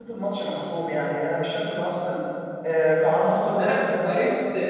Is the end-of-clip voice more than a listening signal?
Yes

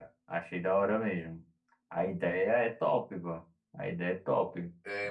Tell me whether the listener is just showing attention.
No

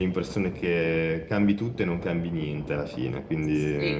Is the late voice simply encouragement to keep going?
No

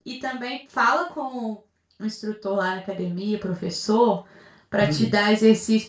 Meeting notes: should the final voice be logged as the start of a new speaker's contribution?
No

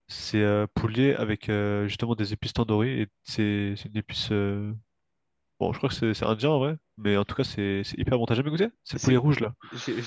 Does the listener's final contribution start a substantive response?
Yes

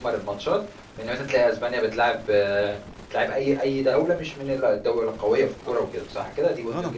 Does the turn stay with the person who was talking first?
No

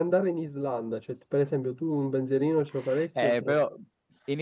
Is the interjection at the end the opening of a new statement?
Yes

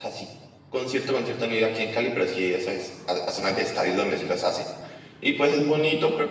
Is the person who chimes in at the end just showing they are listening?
Yes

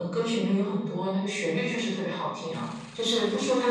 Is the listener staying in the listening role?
Yes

